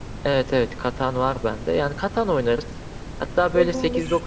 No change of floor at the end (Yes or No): Yes